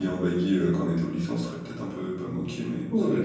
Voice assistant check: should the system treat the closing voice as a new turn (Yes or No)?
Yes